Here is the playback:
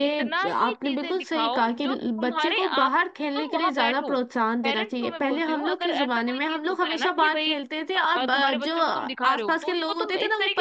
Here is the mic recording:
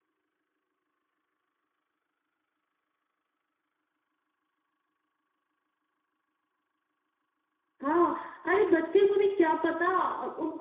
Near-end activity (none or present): present